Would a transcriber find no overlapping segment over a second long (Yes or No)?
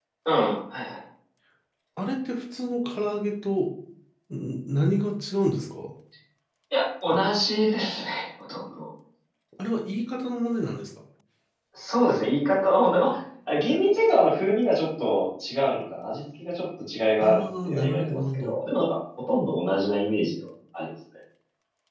No